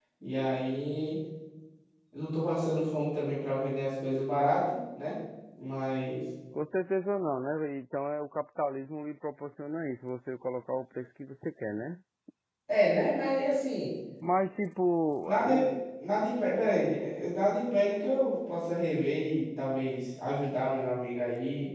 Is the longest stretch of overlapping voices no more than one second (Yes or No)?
Yes